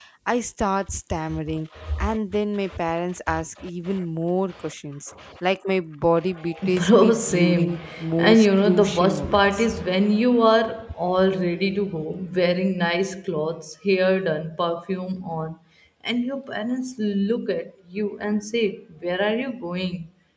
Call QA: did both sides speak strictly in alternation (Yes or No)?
No